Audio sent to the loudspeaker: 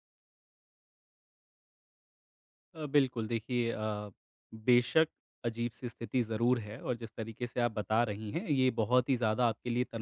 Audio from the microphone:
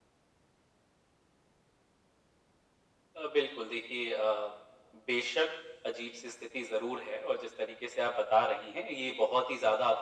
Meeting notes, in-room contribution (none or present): none